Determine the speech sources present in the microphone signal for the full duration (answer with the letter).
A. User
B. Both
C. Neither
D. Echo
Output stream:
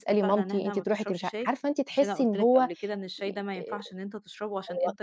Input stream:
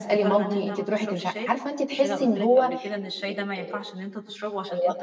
D